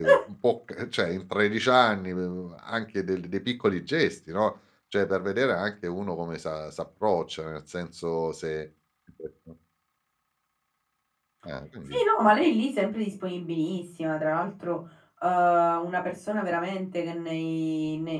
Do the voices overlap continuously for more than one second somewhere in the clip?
No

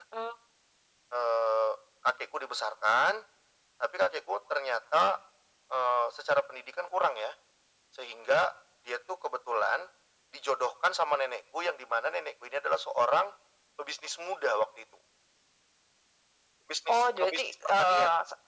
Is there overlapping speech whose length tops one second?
Yes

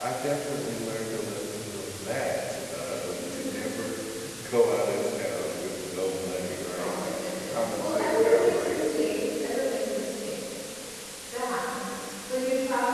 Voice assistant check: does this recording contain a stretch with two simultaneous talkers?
Yes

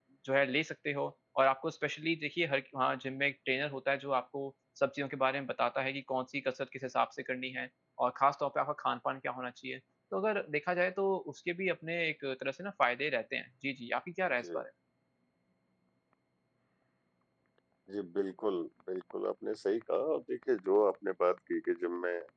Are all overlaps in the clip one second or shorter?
Yes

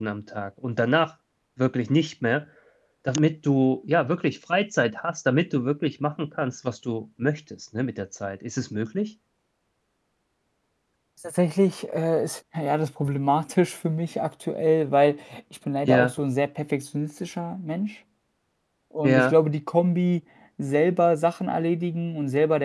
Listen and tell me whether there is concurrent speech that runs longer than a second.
No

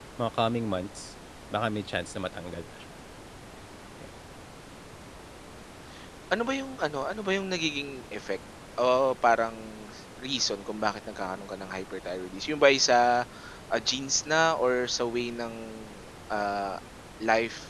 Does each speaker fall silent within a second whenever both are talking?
Yes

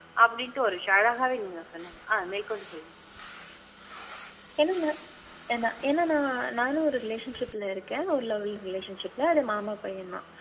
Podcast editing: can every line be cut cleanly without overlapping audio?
Yes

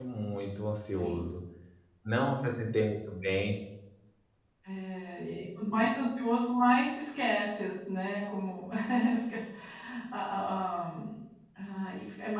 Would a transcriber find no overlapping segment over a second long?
Yes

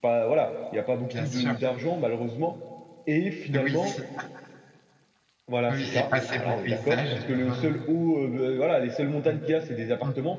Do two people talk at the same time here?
Yes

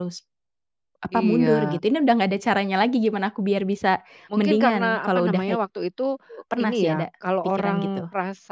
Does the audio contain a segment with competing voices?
Yes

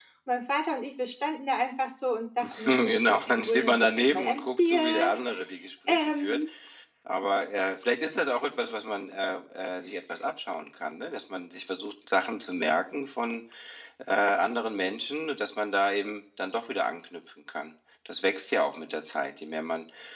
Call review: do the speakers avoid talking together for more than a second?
No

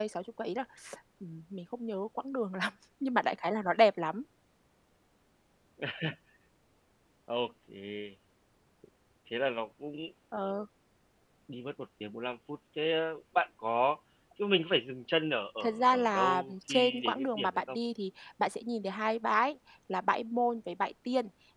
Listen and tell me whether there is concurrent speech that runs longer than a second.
Yes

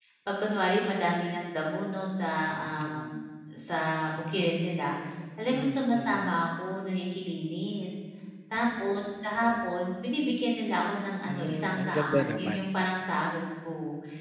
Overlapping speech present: Yes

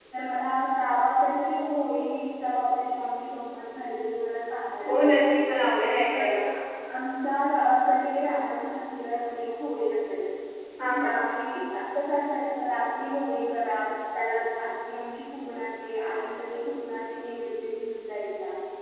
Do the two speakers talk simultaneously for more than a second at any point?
No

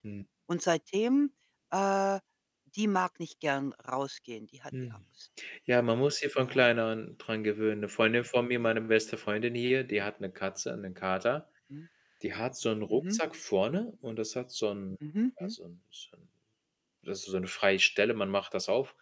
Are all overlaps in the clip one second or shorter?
Yes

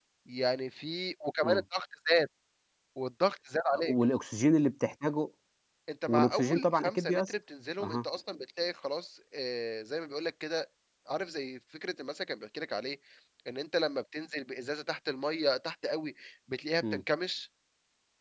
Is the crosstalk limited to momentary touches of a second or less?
No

